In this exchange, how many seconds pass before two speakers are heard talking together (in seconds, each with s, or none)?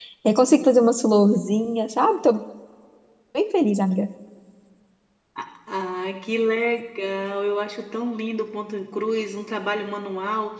none